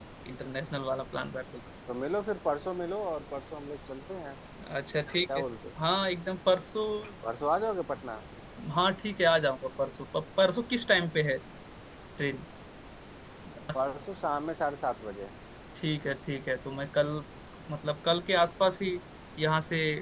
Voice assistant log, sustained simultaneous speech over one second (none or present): none